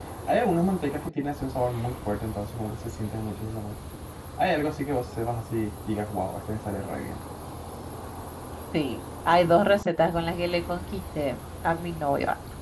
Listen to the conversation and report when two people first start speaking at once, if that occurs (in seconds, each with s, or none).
none